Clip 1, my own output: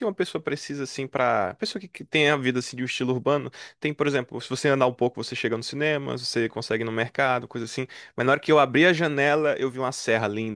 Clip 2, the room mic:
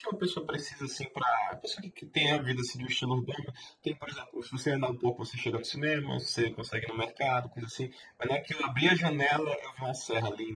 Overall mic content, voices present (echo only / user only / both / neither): echo only